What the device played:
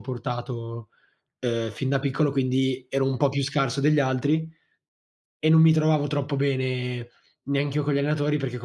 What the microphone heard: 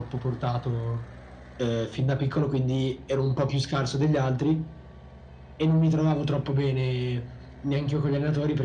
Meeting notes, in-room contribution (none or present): none